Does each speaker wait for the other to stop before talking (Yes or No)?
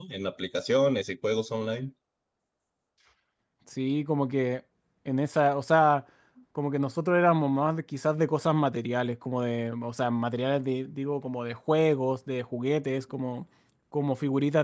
Yes